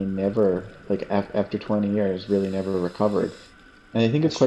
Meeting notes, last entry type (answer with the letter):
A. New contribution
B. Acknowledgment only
B